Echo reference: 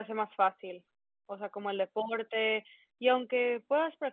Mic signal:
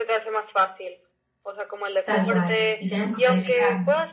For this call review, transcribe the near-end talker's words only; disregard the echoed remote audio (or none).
Tal cual, y tenemos que planificar, ¿no?